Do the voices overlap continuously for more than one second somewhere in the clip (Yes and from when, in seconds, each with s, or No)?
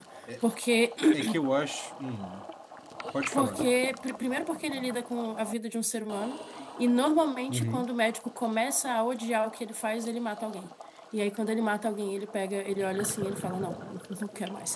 No